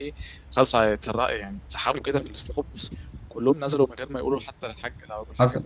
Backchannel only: No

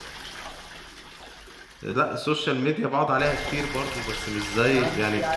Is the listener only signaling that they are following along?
No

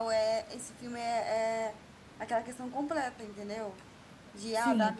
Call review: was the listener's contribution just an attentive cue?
Yes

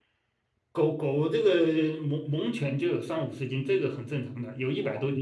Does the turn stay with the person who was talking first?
No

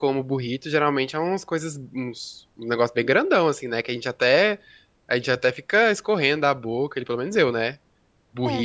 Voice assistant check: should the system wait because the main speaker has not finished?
Yes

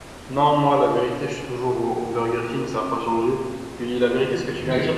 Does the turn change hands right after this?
No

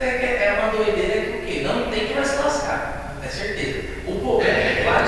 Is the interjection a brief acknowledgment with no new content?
Yes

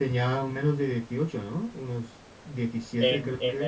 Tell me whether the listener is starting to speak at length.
Yes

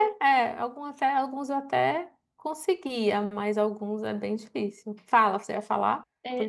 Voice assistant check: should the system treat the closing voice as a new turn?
Yes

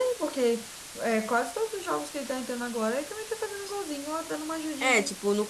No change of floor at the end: No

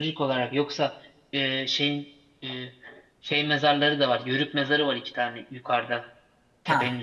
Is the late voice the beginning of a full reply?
No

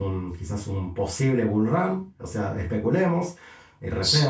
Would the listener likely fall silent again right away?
Yes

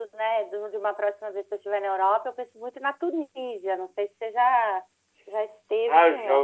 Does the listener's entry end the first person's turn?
Yes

